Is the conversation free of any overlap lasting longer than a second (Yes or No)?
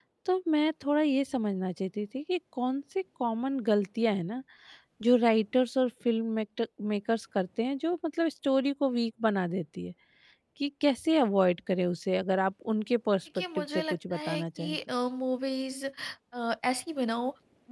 No